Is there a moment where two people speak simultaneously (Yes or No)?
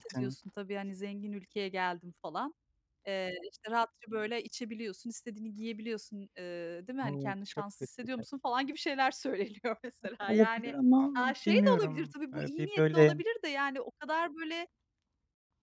Yes